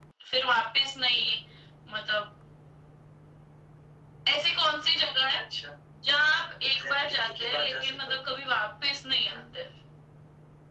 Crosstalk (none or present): present